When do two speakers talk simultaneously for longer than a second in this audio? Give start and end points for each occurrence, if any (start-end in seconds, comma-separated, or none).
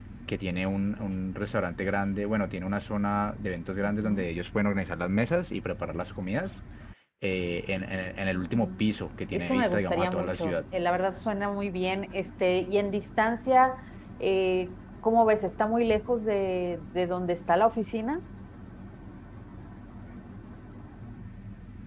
9.3-10.6